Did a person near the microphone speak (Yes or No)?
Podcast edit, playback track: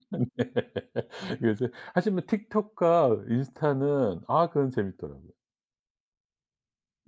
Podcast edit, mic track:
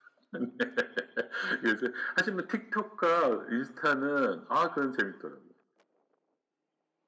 No